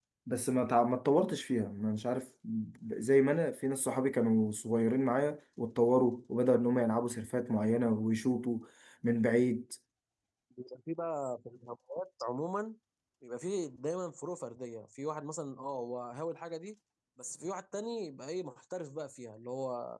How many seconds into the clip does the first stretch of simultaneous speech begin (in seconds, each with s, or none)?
none